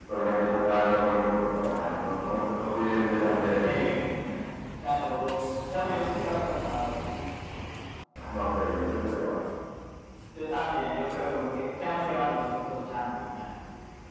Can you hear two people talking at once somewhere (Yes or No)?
Yes